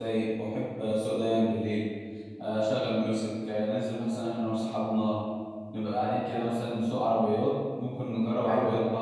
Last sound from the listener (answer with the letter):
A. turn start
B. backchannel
B